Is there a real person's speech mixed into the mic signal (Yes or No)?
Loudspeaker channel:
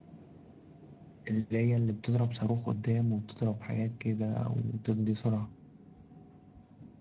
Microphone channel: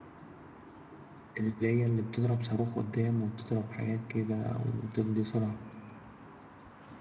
No